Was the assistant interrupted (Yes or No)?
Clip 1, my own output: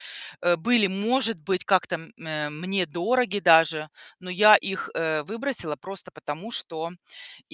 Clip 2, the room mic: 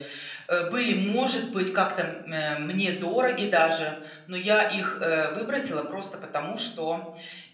No